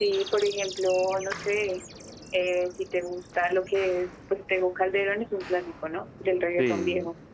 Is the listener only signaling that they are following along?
No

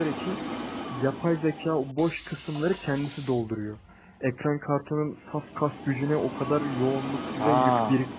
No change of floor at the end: No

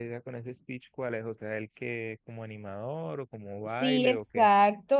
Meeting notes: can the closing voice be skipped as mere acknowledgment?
No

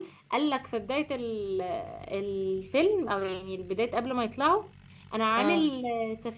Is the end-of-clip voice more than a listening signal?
No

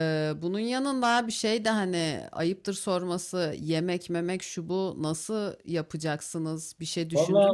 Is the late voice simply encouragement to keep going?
No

